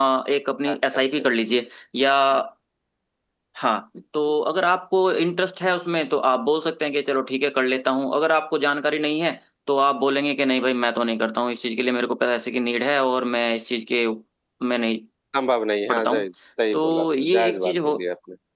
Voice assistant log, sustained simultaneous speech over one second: present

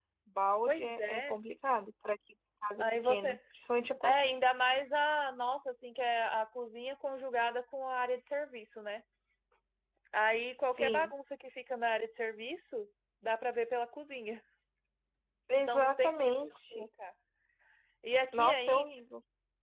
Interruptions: present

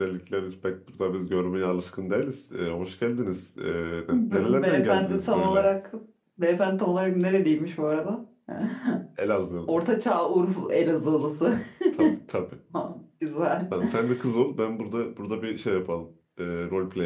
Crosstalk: present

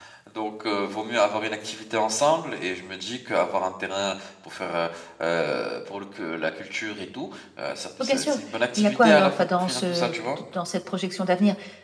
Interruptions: present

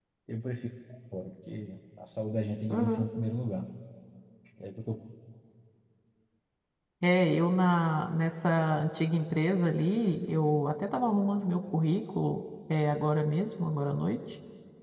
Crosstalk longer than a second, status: none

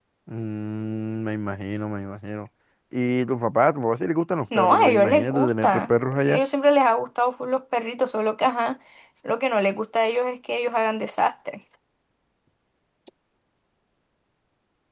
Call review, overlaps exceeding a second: present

